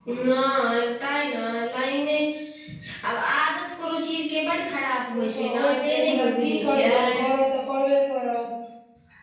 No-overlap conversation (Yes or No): No